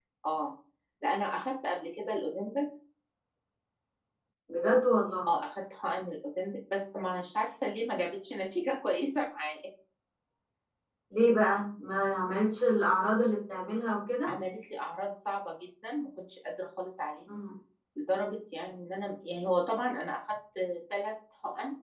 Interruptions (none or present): none